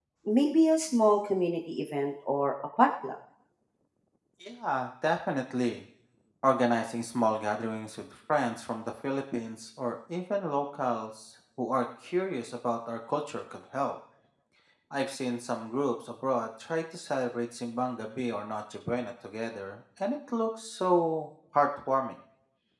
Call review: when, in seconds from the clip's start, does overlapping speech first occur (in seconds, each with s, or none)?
none